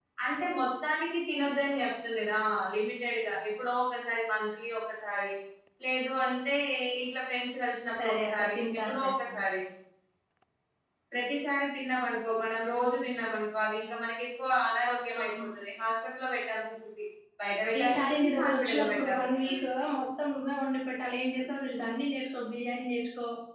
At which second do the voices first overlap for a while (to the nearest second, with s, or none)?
8 s